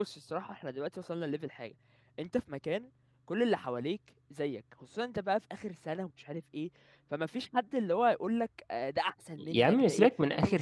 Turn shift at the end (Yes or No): Yes